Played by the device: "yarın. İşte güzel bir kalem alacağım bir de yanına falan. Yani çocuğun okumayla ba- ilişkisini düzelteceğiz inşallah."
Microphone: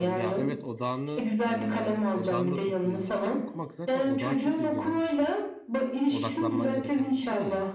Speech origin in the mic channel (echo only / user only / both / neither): both